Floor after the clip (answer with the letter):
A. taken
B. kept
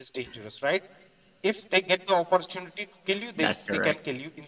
B